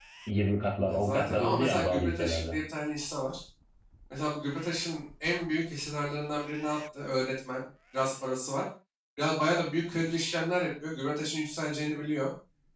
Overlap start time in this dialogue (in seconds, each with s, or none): 0.9 s